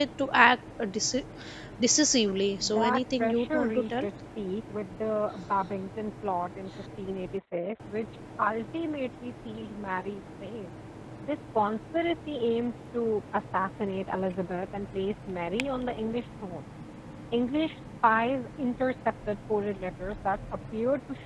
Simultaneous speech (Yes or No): Yes